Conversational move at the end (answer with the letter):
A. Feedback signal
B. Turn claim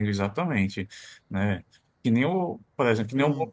A